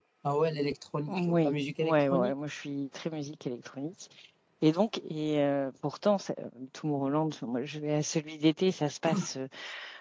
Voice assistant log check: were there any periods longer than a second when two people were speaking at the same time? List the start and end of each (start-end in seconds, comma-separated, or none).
1.1-2.3